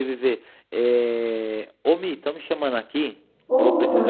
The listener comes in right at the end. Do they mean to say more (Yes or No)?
No